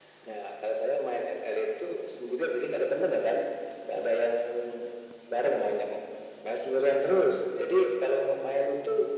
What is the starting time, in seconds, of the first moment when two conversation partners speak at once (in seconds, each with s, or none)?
none